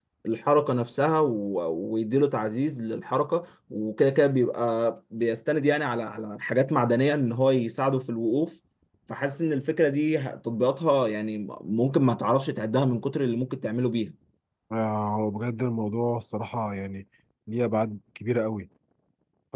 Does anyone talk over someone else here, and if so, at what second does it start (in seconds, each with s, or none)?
none